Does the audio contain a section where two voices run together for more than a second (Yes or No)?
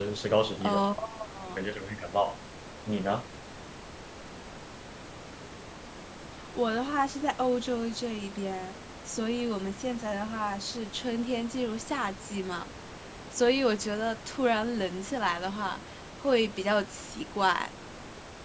No